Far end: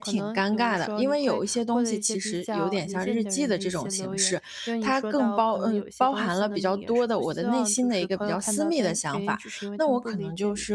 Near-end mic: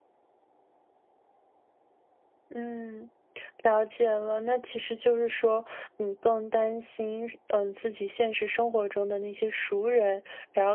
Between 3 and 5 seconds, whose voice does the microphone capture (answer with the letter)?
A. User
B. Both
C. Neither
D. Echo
A